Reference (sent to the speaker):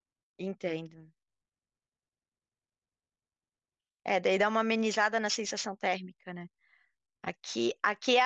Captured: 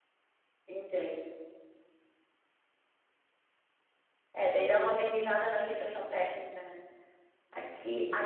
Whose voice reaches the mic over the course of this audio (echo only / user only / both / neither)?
echo only